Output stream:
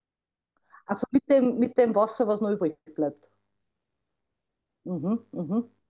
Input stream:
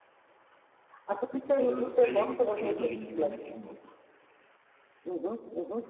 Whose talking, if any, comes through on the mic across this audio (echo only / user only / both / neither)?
both